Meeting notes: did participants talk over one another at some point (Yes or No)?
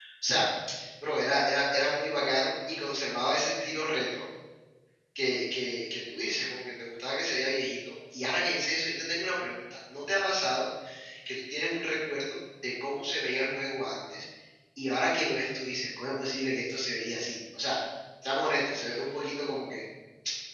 No